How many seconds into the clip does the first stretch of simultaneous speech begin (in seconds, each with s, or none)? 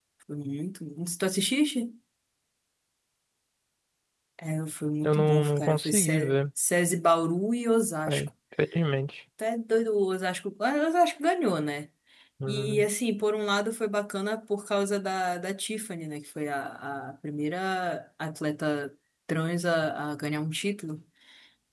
5.0 s